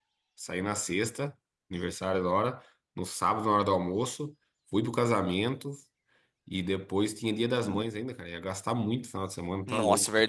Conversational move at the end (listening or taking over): taking over